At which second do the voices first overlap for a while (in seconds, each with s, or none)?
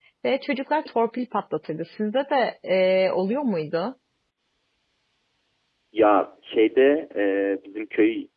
none